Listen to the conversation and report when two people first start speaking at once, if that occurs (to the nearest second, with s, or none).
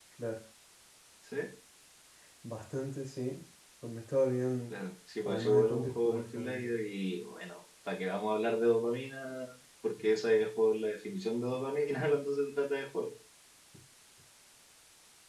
5 s